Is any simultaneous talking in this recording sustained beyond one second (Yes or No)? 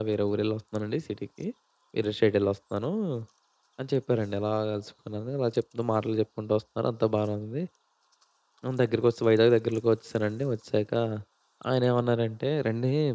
No